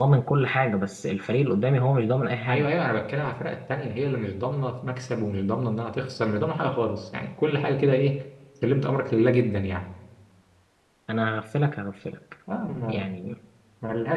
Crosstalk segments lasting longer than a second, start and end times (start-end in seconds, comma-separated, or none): none